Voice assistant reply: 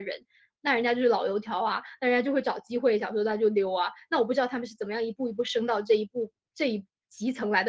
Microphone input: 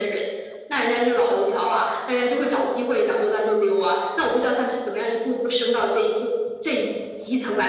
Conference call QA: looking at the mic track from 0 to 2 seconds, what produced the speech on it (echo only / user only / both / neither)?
echo only